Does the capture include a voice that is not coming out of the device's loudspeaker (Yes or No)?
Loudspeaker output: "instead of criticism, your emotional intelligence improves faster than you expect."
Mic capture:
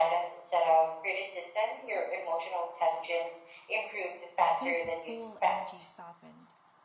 Yes